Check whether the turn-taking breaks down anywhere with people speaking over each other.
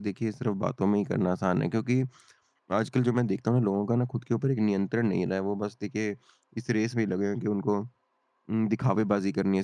No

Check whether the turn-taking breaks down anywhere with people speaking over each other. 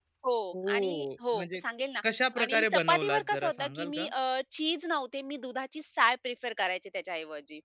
Yes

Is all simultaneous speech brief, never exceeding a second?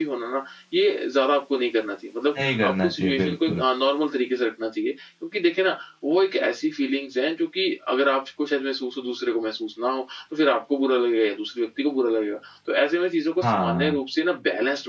No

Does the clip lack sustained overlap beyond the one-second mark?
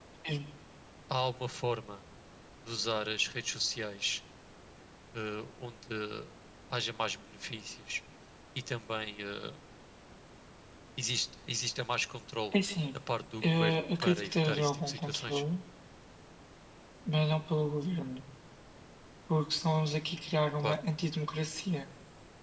No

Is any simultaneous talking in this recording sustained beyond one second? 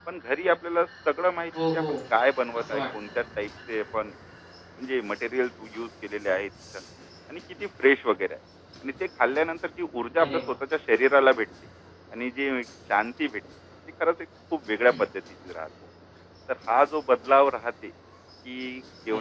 No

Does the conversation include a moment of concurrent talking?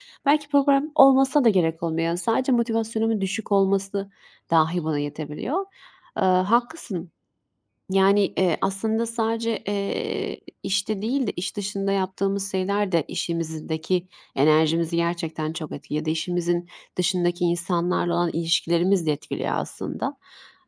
No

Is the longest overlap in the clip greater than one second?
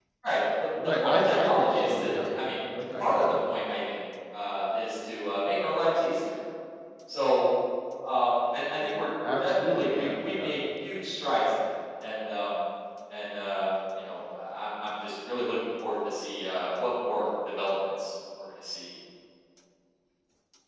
Yes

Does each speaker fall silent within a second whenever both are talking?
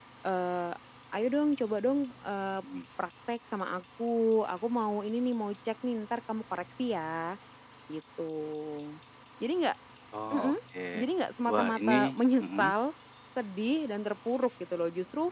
No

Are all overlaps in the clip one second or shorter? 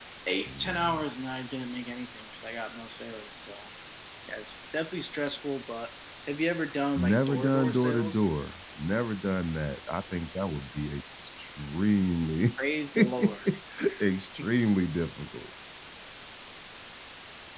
No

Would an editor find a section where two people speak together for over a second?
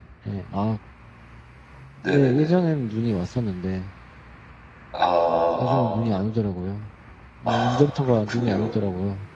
Yes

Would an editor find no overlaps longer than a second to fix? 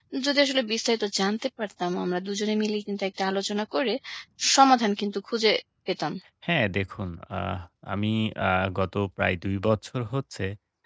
Yes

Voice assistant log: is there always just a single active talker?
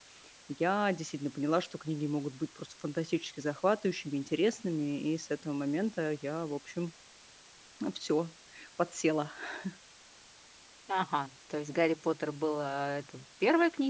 Yes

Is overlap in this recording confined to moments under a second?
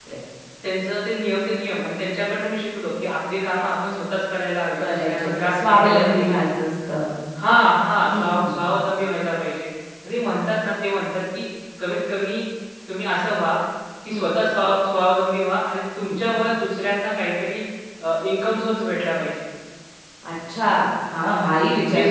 No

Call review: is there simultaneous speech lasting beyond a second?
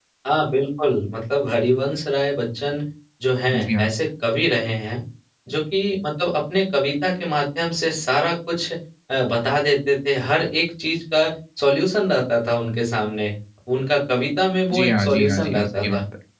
Yes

